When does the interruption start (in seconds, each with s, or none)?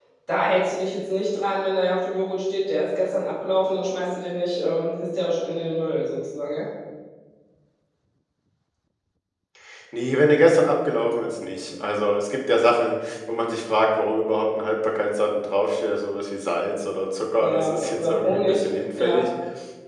17.4 s